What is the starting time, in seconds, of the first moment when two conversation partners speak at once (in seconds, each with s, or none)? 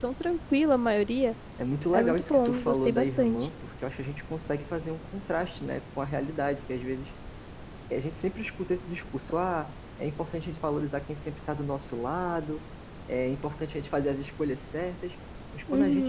1.9 s